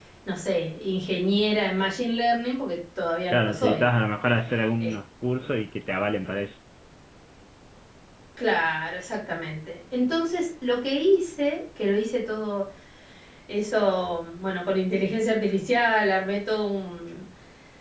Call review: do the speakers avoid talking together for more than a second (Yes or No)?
Yes